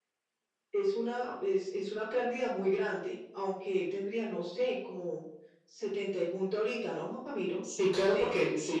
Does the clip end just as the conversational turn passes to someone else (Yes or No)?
Yes